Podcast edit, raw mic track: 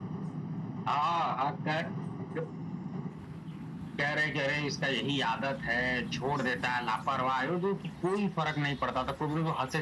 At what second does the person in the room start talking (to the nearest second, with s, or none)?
none